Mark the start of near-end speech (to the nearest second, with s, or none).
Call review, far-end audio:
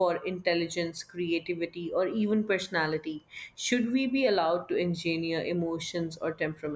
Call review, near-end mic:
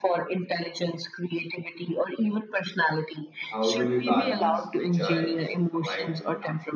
3 s